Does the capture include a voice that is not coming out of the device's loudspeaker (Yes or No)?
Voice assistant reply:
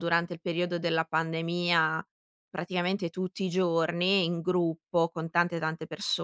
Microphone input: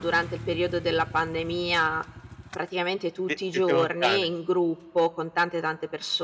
Yes